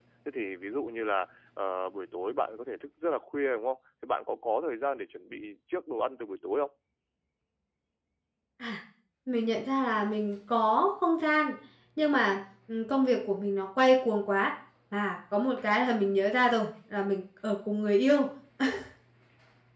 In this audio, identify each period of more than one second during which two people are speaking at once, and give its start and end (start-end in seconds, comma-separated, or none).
none